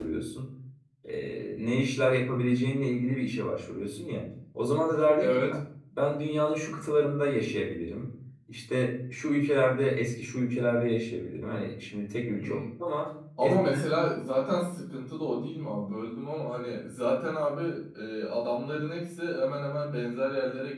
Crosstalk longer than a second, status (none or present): none